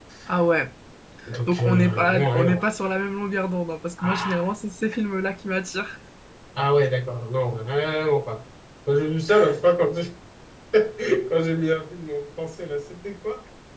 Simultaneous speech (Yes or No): Yes